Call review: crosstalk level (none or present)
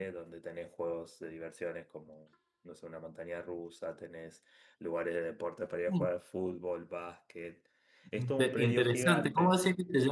present